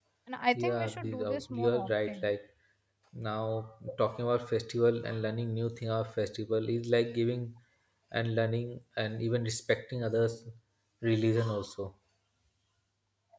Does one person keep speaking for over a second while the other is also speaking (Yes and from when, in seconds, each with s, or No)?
Yes, from 0.6 s